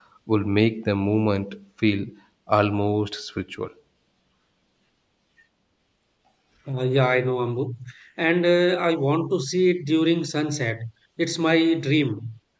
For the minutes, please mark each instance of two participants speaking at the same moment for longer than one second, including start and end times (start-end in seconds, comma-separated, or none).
none